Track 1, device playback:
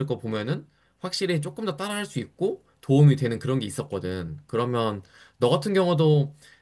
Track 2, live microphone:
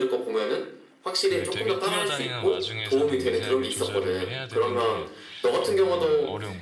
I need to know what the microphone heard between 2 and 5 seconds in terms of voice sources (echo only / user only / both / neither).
both